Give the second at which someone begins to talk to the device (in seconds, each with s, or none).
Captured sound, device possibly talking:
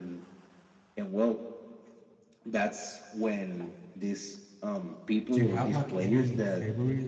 5.3 s